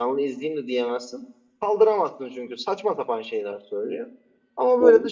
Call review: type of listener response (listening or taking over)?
listening